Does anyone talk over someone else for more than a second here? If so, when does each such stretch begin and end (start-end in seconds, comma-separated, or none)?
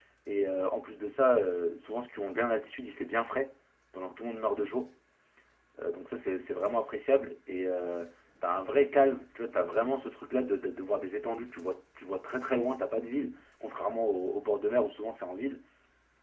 none